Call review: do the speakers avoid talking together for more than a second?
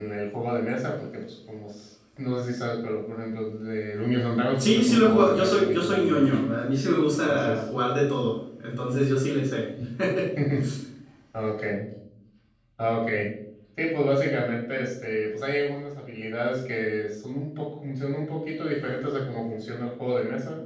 No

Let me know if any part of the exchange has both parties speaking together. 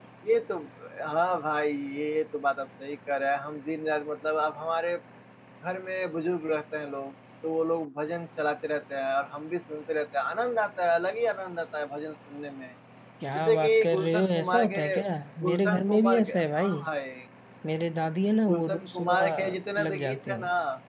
Yes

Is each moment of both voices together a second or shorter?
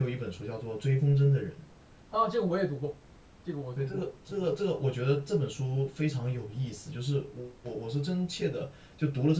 Yes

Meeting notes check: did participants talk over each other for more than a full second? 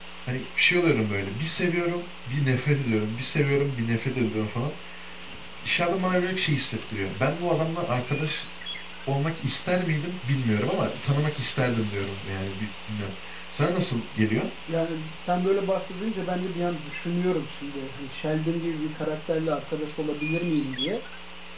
No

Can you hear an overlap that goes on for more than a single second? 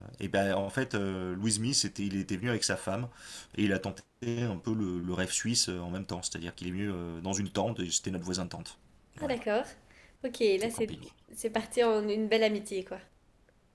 No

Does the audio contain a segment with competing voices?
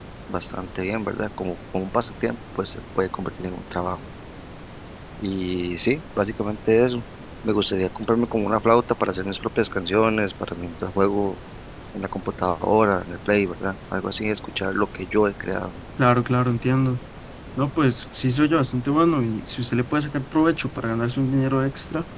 No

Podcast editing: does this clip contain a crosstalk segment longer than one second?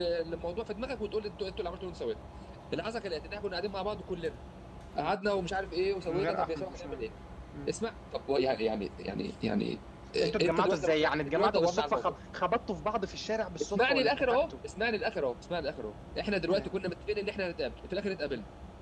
Yes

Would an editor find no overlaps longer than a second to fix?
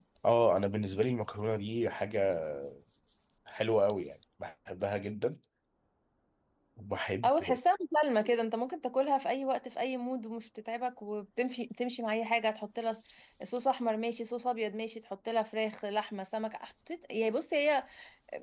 Yes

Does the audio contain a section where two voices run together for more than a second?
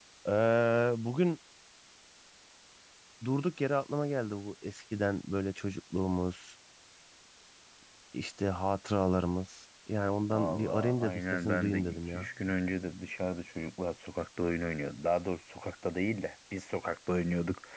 Yes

